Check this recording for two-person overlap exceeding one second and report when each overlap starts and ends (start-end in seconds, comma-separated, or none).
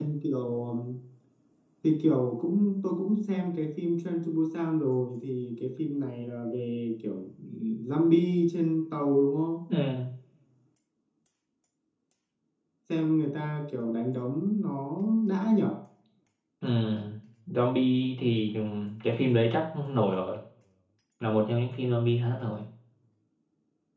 none